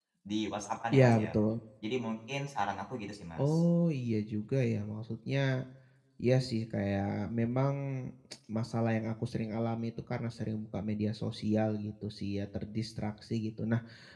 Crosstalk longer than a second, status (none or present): none